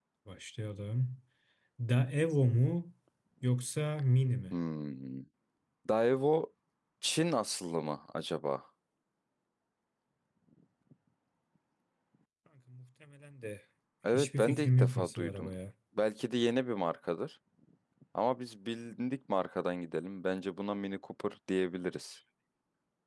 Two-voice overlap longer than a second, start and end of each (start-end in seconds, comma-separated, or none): 14.1-15.5